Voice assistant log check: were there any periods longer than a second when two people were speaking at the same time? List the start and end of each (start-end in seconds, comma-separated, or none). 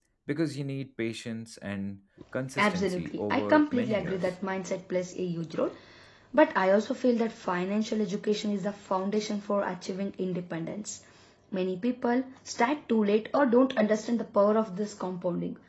2.6-4.2